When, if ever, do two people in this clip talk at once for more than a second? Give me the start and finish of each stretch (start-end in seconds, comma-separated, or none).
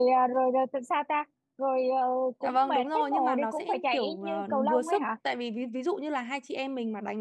2.4-5.0